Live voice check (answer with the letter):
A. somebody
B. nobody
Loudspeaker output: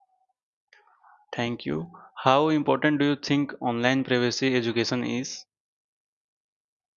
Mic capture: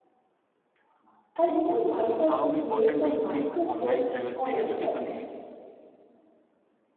A